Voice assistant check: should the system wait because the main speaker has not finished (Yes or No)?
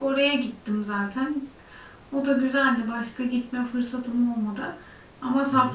Yes